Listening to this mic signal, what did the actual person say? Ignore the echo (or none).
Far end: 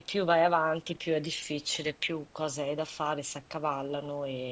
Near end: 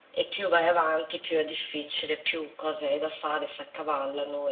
none